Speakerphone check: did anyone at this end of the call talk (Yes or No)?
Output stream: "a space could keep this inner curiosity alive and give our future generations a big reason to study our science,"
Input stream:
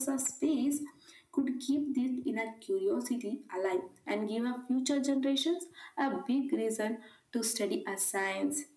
No